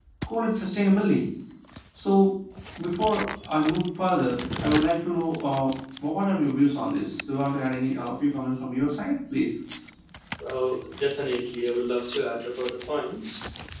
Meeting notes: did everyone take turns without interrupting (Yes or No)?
Yes